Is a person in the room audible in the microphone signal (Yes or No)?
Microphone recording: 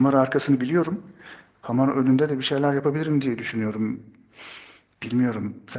Yes